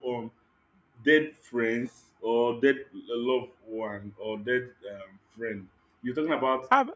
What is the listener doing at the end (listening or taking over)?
listening